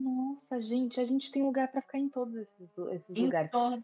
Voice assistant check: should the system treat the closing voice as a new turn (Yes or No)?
No